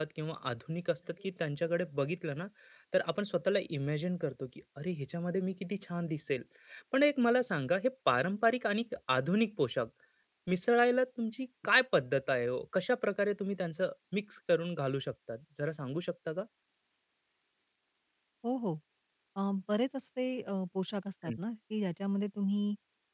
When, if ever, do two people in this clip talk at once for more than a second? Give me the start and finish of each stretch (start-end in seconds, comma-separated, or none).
none